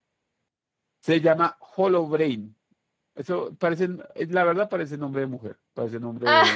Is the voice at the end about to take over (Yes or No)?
No